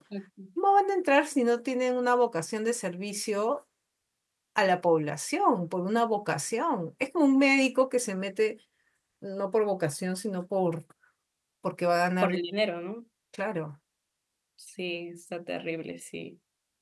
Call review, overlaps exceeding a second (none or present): none